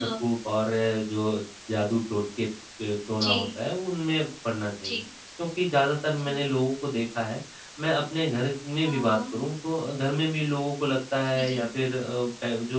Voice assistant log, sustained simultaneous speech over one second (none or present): none